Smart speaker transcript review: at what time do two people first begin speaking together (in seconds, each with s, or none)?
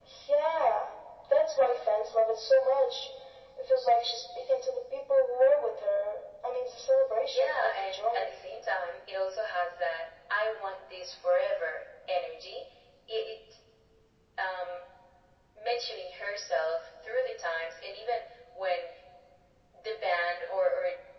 7.2 s